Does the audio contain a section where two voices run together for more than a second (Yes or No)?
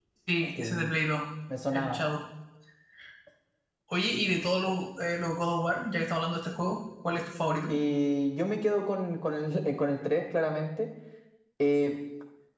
No